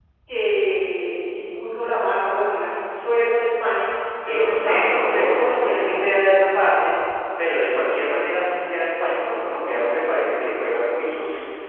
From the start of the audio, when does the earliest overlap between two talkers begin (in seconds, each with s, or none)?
4.2 s